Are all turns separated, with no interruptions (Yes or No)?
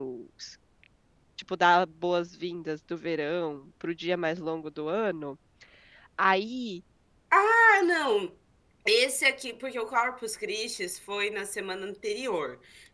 Yes